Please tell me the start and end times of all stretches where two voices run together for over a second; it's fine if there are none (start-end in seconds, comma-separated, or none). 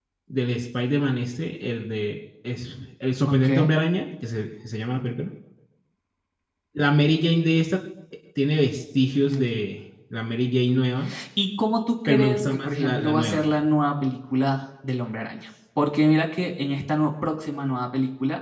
12.1-13.4